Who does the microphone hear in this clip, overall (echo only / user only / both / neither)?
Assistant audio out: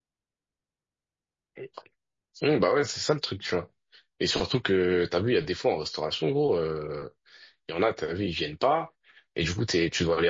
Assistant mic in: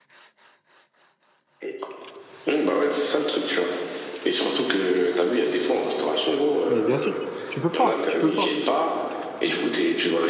both